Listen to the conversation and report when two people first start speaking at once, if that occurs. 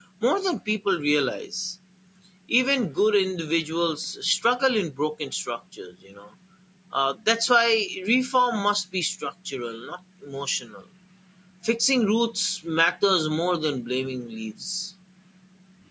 none

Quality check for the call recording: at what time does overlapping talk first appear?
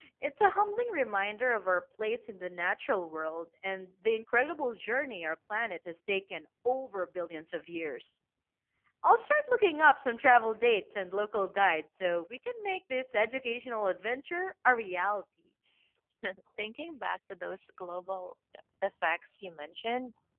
none

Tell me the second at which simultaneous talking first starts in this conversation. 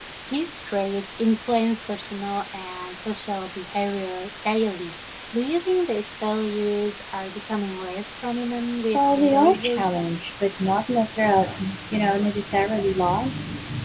8.9 s

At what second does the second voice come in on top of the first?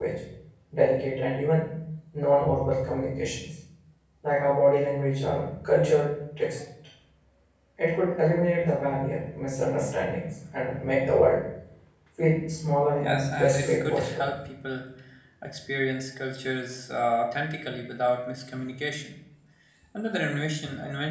13.0 s

